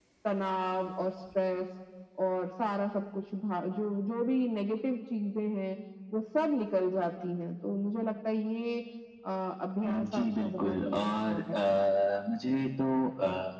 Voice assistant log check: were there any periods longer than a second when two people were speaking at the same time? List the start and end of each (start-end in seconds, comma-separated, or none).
9.8-11.6